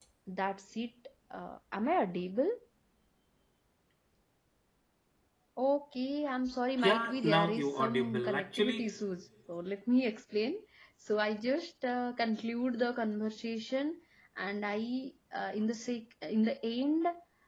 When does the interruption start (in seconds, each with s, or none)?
6.8 s